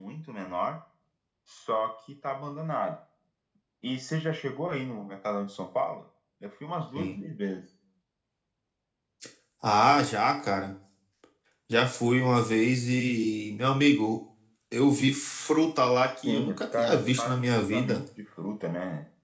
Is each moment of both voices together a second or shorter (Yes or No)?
No